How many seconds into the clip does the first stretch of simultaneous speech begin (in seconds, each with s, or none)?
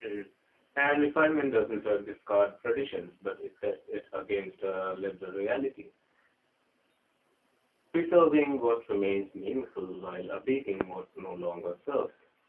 none